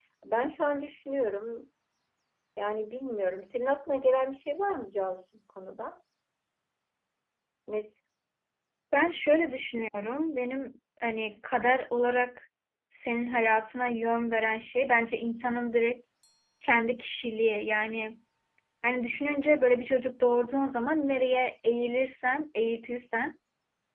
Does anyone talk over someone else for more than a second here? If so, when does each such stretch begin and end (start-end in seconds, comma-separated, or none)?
none